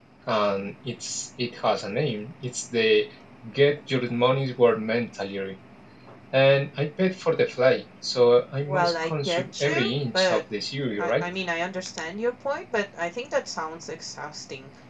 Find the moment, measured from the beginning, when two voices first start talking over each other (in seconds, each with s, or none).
8.7 s